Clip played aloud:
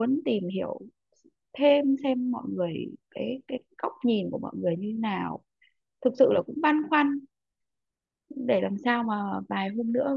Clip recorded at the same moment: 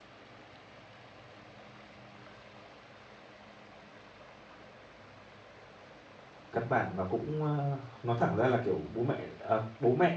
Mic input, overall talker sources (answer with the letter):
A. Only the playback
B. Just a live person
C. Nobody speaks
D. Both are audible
B